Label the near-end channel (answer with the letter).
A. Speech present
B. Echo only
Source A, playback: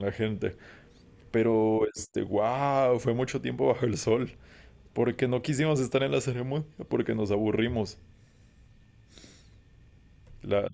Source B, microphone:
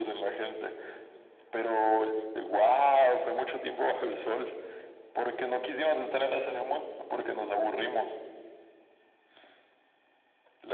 B